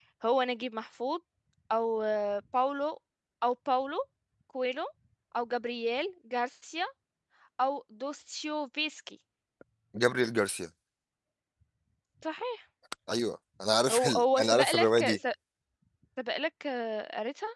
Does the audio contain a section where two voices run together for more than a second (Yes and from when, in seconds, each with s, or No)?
Yes, from 13.9 s